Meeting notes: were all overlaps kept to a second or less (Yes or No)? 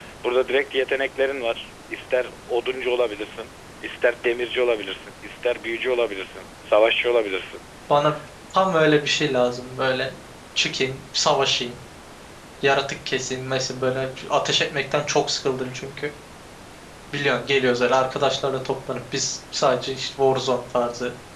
Yes